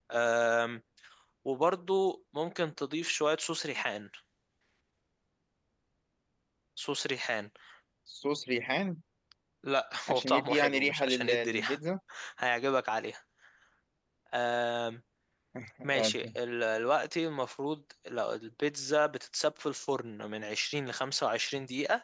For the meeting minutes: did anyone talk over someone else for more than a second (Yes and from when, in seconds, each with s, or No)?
Yes, from 10.1 s